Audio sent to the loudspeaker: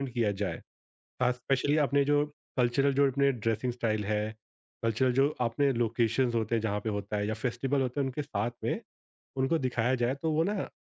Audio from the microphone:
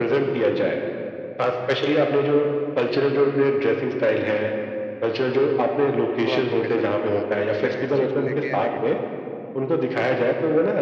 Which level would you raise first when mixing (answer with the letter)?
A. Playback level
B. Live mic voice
B